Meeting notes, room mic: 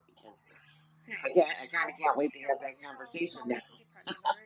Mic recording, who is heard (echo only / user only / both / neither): echo only